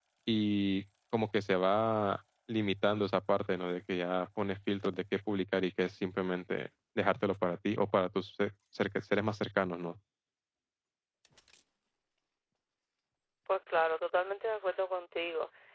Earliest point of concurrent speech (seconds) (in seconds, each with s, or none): none